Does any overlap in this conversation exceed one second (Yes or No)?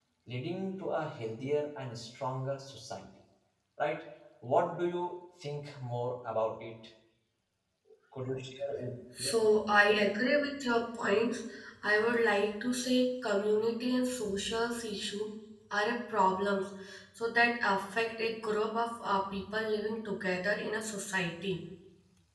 No